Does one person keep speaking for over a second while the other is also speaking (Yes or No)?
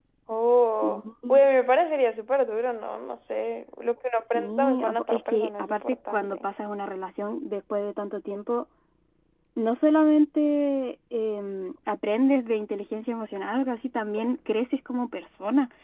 Yes